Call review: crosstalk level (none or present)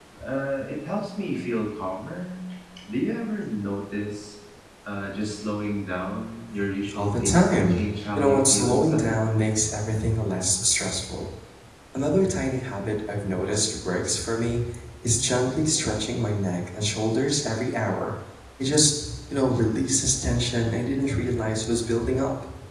present